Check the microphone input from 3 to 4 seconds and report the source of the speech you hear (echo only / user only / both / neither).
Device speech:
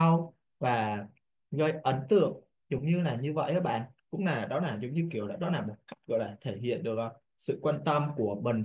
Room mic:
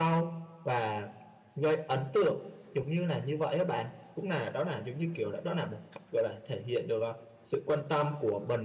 echo only